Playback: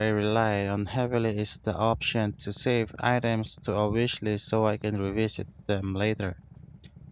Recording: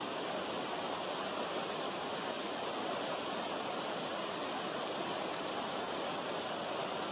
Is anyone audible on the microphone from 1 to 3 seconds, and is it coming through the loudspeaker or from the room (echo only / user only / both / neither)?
neither